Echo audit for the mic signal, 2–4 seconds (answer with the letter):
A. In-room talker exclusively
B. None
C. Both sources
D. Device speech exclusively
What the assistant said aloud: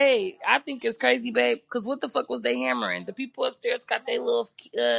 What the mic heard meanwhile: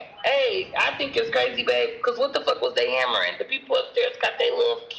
D